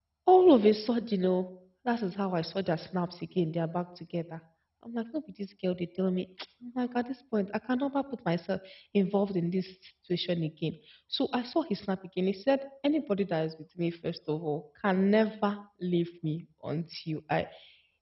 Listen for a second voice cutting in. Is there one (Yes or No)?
No